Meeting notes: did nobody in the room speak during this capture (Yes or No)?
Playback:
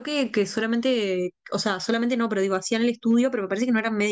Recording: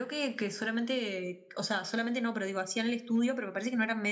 Yes